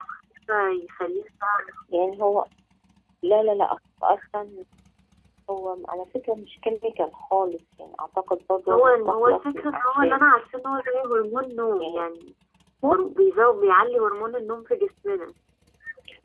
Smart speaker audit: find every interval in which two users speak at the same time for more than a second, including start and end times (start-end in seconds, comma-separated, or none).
8.7-10.2